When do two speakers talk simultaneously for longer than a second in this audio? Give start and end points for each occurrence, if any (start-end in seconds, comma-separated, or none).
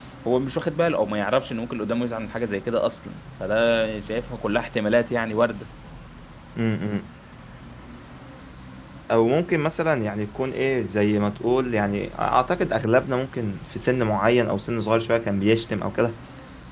none